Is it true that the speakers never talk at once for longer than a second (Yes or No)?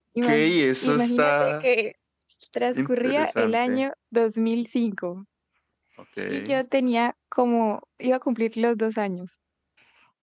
No